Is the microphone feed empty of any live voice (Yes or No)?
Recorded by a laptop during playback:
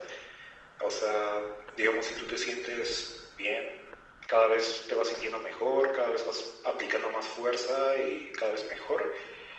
Yes